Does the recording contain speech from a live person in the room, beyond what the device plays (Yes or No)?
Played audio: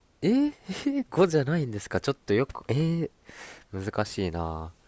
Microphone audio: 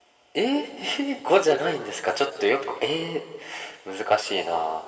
No